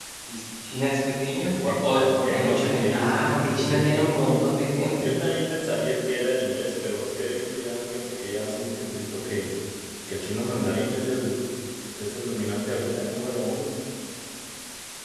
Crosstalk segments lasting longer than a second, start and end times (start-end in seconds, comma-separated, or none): 1.4-4.4